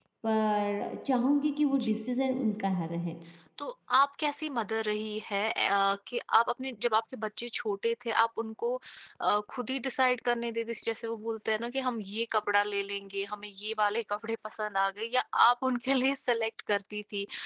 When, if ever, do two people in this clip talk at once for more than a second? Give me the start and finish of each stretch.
none

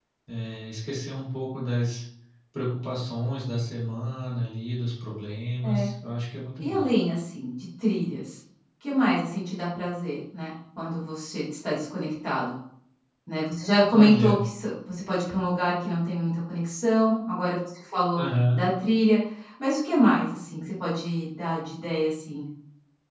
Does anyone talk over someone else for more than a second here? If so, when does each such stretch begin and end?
none

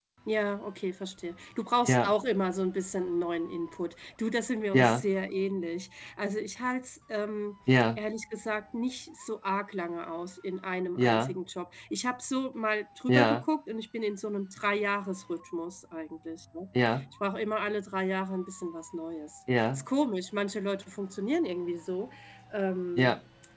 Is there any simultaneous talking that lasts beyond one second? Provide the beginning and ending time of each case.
none

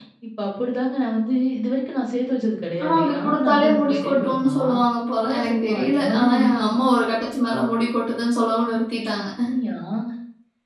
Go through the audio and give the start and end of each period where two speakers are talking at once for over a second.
2.8-4.6, 5.2-6.6

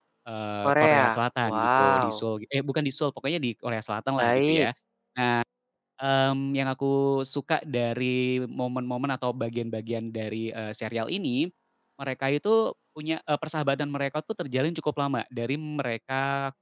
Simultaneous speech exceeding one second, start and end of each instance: 0.6-2.2

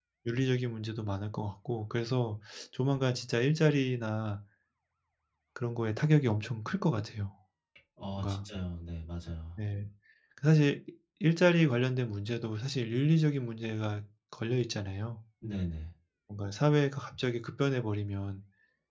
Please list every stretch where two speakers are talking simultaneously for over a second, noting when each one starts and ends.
none

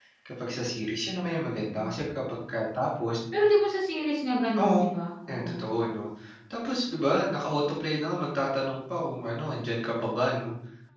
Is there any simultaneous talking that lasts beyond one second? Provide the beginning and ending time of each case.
none

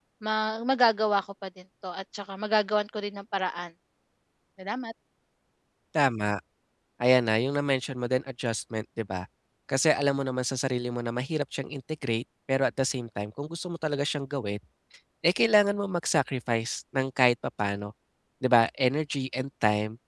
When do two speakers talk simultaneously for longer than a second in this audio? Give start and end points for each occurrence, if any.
none

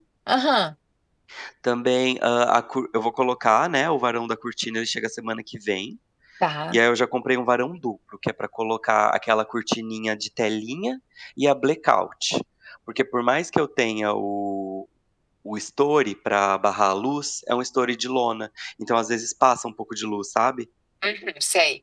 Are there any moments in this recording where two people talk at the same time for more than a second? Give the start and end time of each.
none

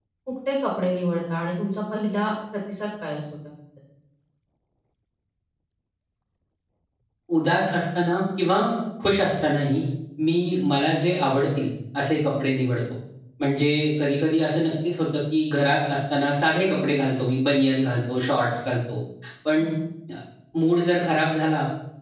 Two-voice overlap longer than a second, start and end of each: none

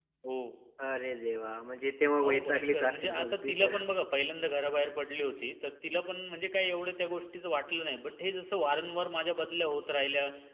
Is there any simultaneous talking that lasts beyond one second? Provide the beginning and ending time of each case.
2.2-3.8

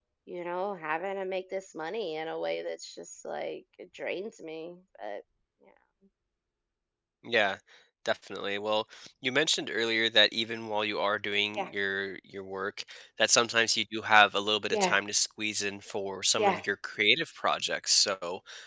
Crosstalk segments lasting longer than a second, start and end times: none

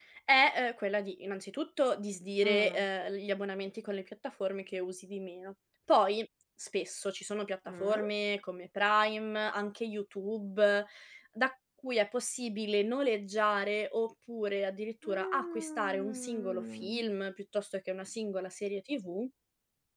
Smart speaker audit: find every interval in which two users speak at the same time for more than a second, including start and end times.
15.1-17.1

